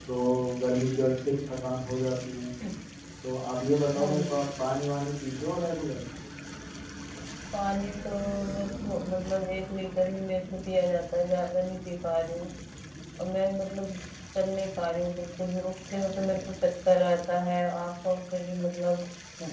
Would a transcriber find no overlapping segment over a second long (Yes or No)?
Yes